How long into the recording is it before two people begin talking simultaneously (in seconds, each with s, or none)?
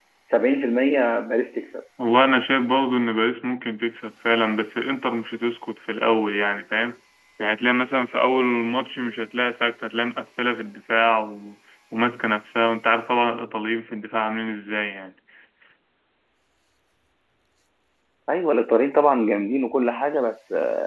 none